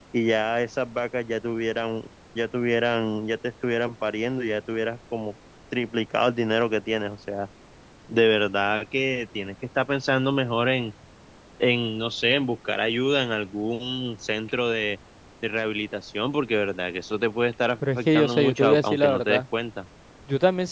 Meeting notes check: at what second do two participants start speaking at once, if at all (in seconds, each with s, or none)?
17.8 s